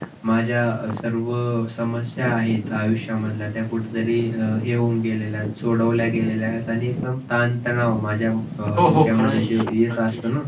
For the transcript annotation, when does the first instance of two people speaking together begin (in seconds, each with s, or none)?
8.8 s